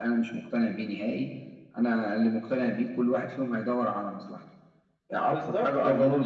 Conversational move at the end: taking over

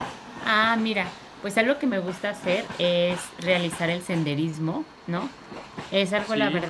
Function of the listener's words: listening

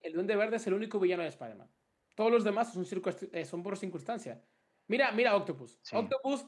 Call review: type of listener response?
listening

